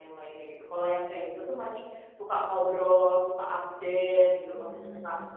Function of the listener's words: listening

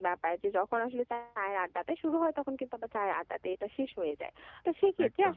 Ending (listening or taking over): listening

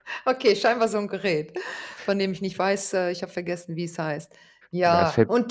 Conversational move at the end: listening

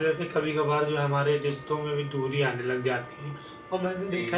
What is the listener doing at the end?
listening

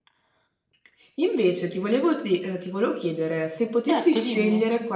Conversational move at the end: listening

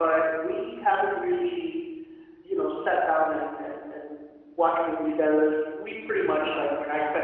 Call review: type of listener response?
listening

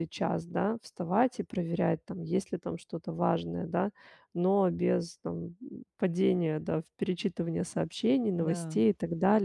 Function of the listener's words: listening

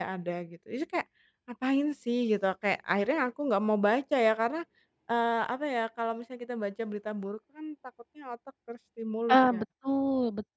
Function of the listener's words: taking over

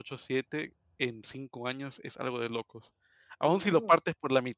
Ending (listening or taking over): listening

